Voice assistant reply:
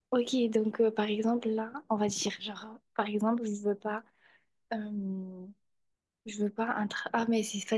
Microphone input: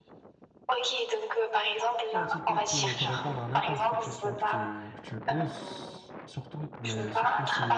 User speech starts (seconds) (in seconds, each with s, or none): 2.1 s